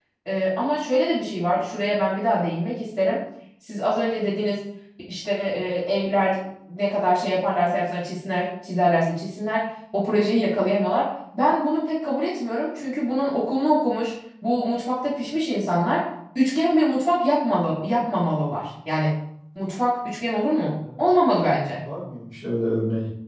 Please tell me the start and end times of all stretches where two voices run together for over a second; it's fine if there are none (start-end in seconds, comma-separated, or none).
none